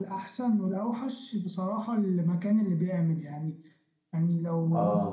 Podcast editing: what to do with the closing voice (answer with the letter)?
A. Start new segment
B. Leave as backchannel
B